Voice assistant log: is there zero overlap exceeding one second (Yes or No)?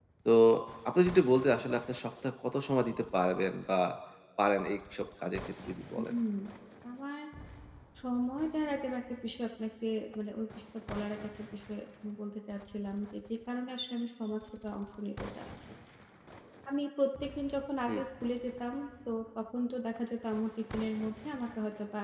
Yes